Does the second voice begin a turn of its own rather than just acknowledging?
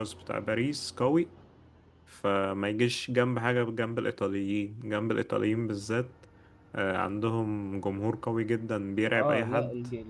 Yes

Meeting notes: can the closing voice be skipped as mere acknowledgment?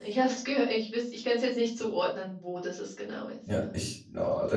No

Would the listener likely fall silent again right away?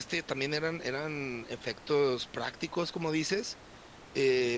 Yes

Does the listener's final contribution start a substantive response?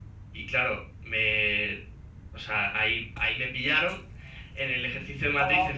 No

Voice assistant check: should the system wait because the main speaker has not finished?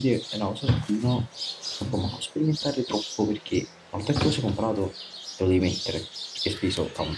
Yes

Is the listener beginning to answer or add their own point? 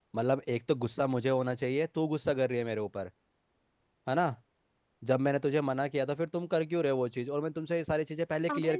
Yes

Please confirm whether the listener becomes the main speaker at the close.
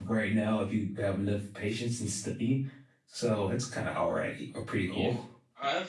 Yes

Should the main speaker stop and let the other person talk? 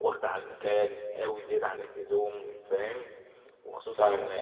No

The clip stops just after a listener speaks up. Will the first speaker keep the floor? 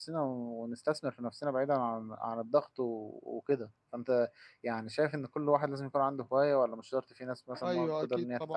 No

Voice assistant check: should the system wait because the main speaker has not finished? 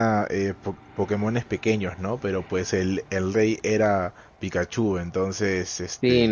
No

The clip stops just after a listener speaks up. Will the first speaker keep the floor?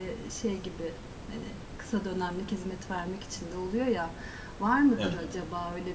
Yes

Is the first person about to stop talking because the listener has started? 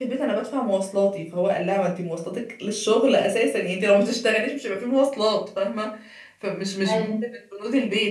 No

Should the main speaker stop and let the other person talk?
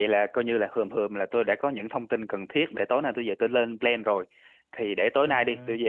No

